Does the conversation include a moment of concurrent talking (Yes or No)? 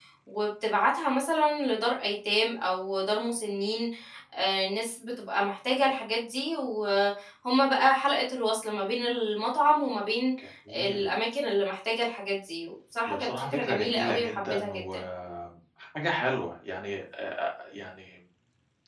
Yes